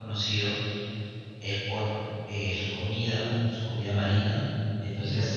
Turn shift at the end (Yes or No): No